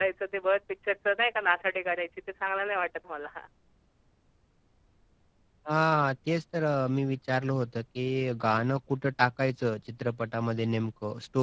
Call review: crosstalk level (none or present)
none